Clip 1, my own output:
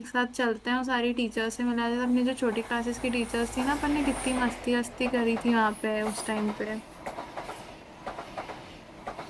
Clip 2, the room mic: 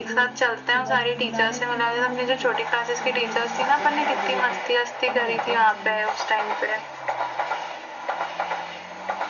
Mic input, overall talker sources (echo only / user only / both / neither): both